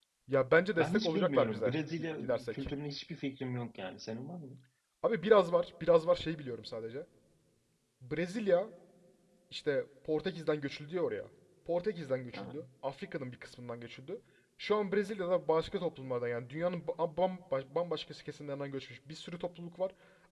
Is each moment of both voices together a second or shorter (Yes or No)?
No